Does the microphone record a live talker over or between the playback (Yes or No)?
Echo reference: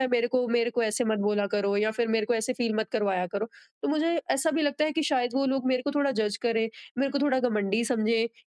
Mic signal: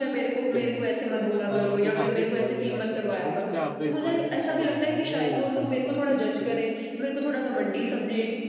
Yes